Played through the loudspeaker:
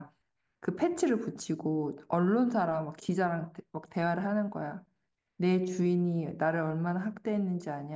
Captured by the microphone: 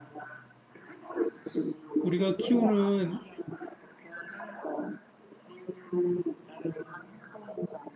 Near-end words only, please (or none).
우리가 키우는